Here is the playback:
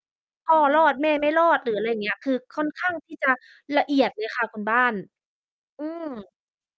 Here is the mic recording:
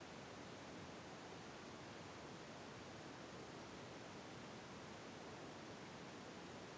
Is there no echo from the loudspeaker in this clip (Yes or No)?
Yes